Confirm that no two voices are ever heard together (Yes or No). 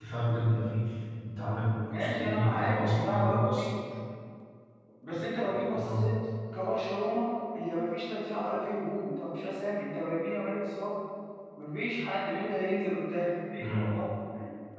No